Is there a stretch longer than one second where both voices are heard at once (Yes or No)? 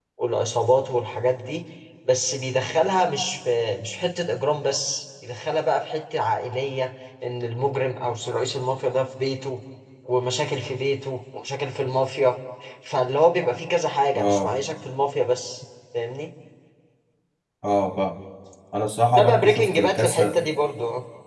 Yes